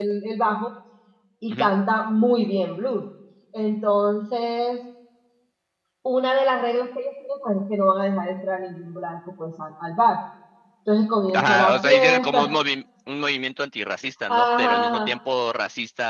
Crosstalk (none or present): present